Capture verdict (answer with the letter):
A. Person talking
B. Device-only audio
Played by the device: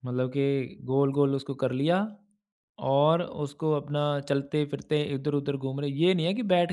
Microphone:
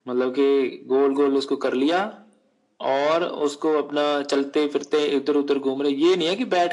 B